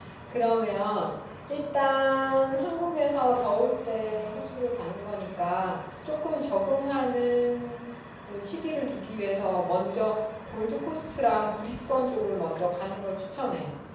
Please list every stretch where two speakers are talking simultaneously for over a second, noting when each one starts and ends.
none

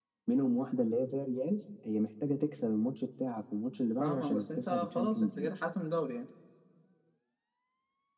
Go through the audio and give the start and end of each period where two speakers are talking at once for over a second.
4.0-5.5

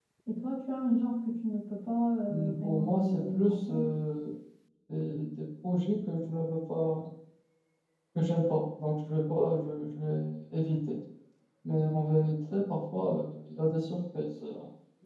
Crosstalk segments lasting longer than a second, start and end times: 2.3-3.9

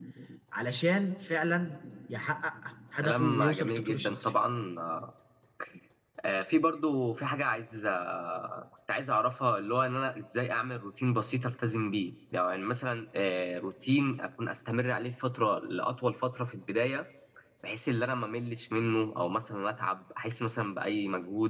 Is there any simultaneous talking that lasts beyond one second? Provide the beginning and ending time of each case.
3.0-4.3

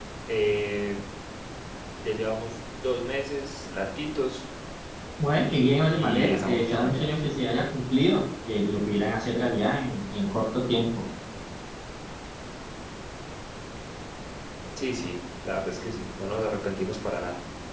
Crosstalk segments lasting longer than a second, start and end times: 5.9-7.2

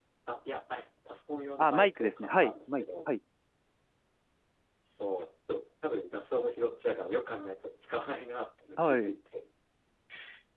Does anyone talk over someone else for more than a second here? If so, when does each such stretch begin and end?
1.6-3.1

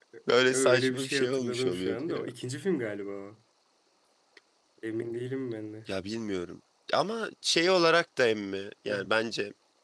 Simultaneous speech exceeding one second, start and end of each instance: 0.5-2.3

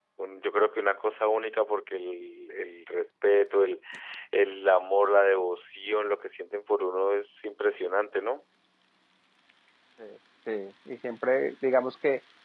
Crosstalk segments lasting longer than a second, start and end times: none

